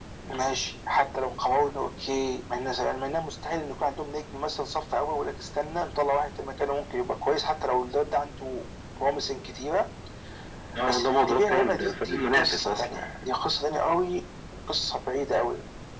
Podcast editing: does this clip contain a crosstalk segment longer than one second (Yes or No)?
Yes